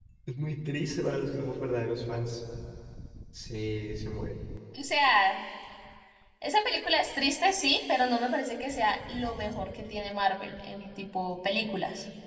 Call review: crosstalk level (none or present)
none